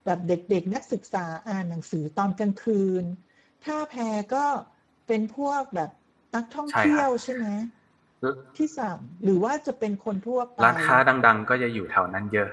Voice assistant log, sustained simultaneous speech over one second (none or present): none